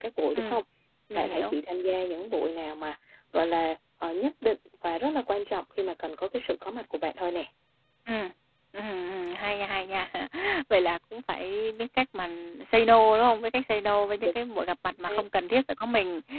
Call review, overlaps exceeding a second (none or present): none